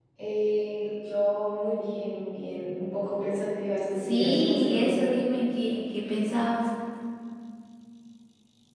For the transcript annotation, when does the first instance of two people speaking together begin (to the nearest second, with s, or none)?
4 s